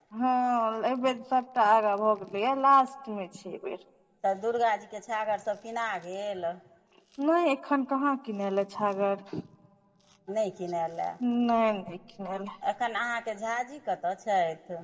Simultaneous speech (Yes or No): No